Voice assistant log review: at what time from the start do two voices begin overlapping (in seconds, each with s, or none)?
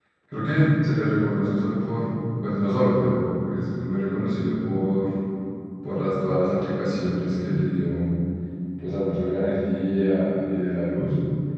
none